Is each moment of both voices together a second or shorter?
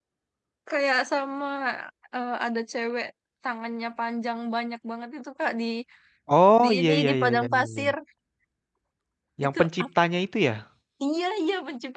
No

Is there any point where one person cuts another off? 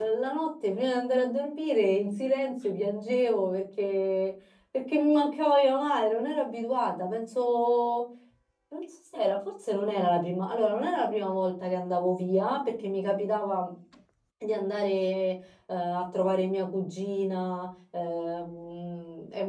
No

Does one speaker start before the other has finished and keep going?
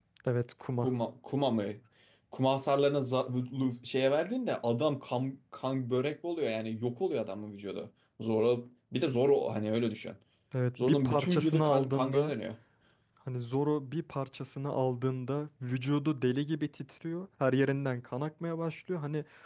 Yes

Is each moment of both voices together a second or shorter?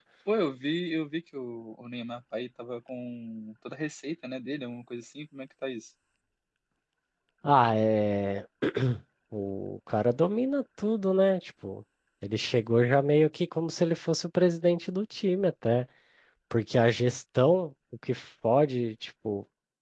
Yes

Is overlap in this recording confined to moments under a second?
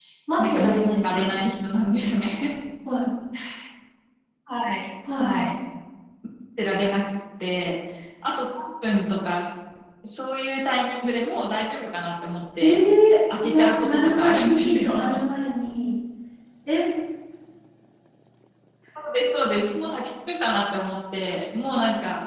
No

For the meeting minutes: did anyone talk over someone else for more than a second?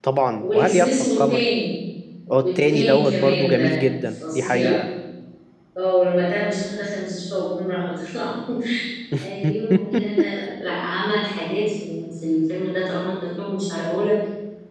Yes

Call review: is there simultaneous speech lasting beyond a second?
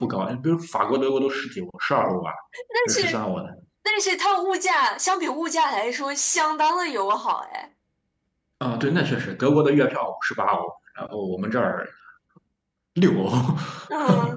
No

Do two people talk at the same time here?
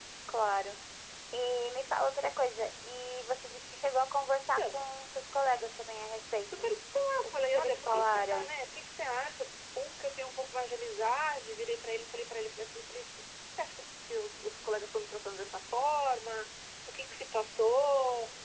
Yes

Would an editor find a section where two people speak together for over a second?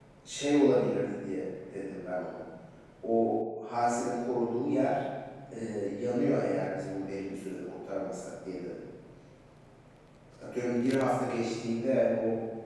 No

